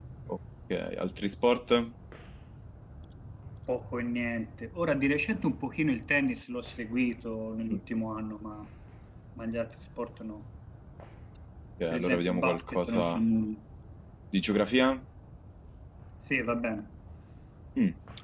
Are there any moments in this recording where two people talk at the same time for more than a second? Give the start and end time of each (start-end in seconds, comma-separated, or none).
11.9-13.2